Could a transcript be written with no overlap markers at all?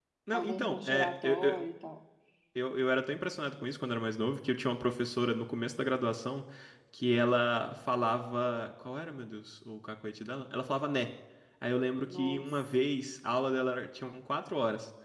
No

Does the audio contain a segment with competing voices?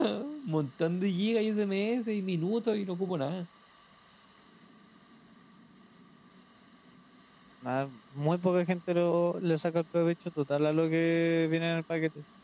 No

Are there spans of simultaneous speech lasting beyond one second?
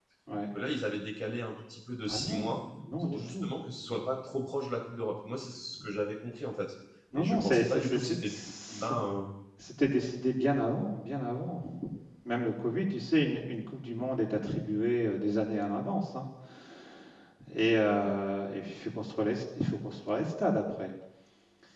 Yes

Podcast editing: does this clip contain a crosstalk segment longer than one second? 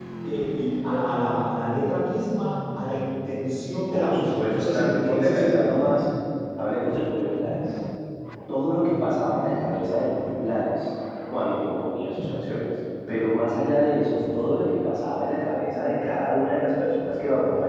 Yes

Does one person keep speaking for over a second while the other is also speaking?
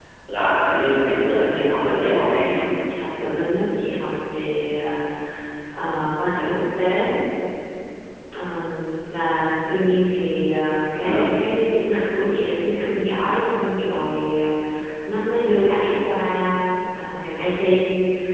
Yes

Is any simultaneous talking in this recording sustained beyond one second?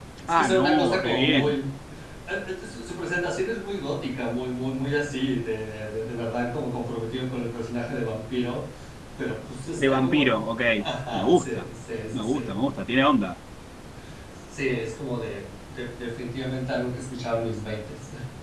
Yes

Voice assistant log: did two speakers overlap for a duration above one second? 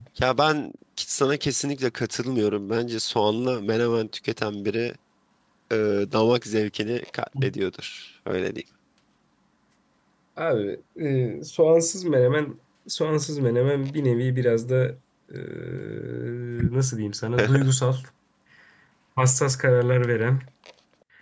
No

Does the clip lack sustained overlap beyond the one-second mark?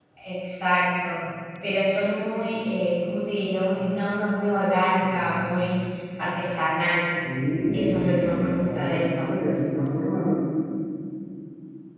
No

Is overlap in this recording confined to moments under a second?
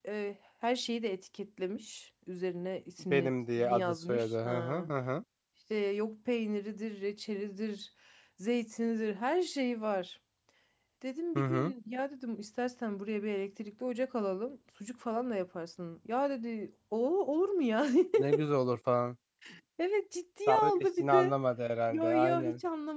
No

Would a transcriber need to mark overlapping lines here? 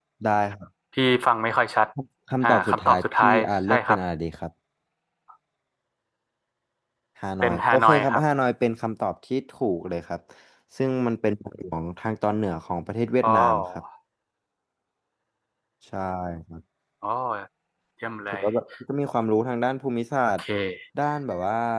Yes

